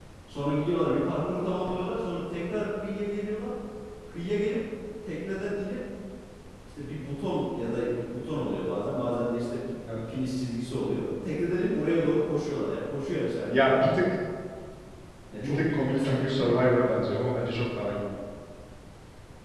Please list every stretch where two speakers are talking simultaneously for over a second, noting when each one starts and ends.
15.4-16.6

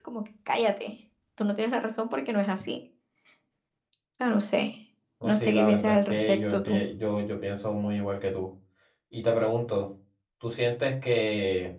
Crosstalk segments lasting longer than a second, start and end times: 5.2-6.8

